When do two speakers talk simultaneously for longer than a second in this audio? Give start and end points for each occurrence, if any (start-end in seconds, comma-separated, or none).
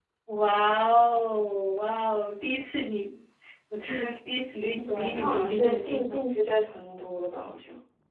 4.9-6.2